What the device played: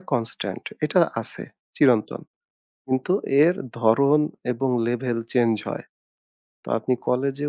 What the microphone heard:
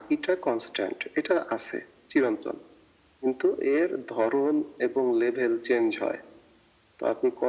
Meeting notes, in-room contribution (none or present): none